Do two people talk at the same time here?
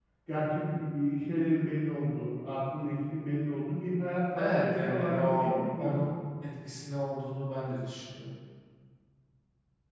Yes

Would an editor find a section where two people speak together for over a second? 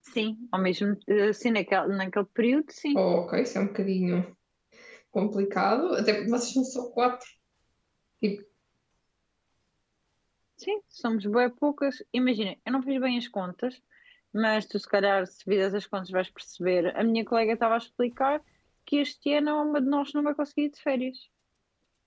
No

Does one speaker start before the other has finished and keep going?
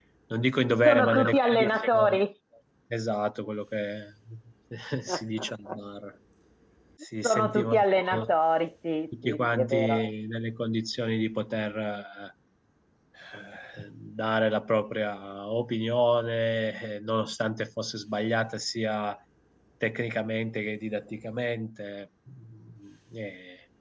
Yes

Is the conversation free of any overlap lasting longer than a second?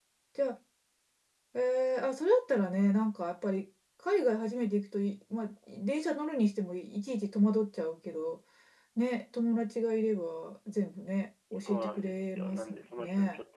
No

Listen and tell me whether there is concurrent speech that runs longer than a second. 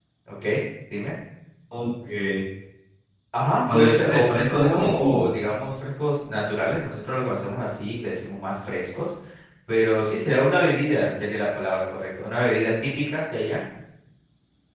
Yes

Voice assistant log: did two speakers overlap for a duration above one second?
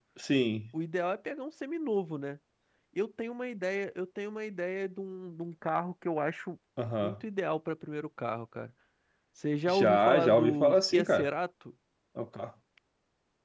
Yes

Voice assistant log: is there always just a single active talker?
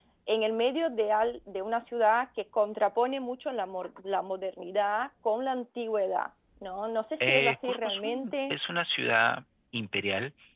No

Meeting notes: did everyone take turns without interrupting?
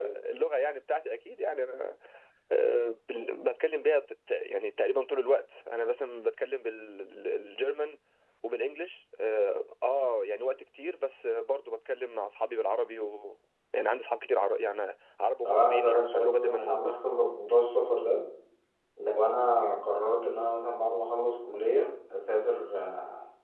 No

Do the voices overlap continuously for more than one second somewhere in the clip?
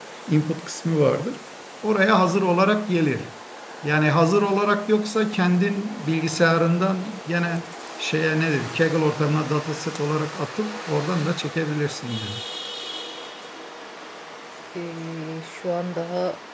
No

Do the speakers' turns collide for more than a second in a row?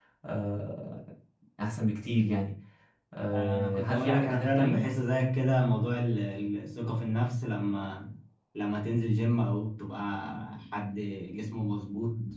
Yes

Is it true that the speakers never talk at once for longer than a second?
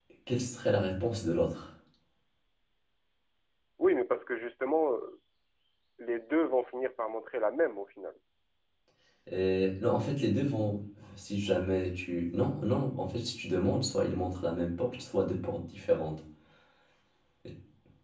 Yes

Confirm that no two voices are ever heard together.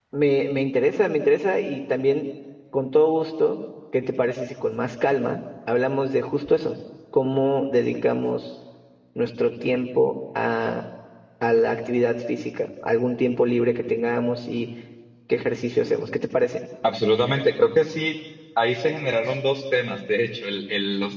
Yes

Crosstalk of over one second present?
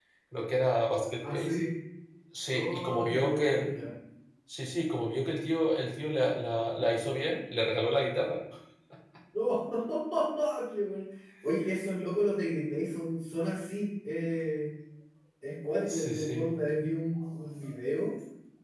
Yes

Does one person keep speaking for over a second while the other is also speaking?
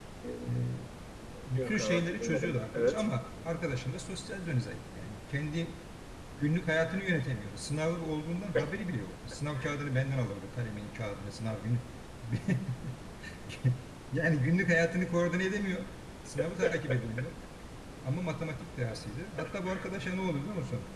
Yes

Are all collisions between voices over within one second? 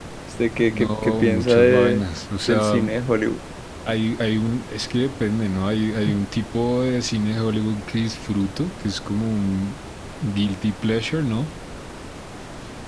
No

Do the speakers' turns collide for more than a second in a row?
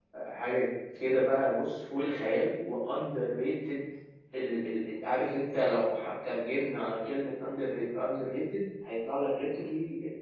No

